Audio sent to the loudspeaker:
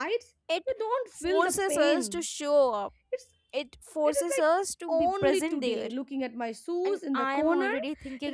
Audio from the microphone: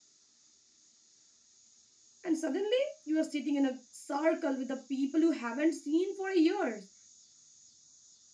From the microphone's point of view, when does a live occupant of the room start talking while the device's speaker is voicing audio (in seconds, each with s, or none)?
2.2 s